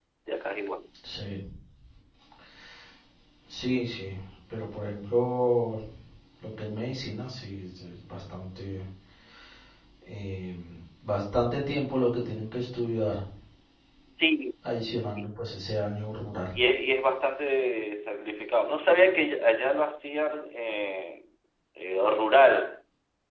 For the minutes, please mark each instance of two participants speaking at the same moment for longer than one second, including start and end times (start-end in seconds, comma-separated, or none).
none